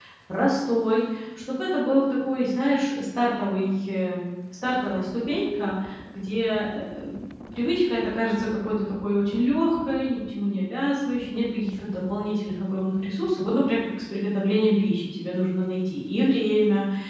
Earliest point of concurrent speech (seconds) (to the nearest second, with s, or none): none